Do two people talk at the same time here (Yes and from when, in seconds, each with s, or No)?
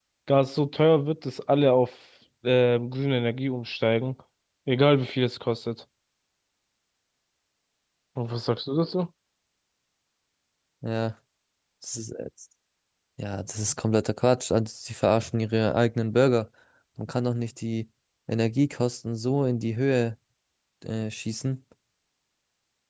No